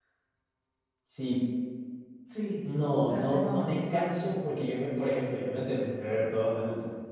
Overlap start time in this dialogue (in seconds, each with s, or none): 2.9 s